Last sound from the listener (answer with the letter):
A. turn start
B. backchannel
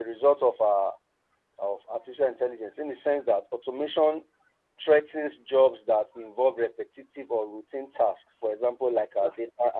B